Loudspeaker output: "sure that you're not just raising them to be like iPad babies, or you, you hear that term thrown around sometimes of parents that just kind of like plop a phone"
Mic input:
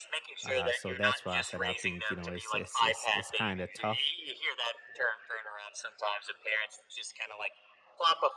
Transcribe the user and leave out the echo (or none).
Uh, so that's why I said I think you know it's it's it's it's kind of tough,